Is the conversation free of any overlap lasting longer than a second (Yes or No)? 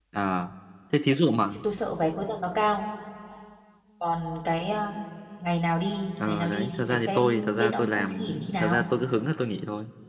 No